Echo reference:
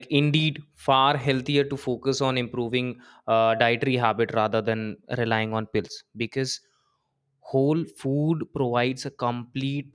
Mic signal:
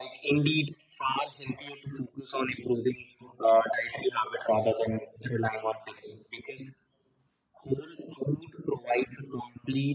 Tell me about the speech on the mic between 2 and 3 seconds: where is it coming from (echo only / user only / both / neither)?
echo only